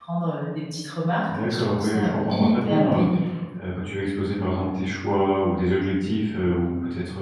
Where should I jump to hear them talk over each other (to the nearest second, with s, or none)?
1 s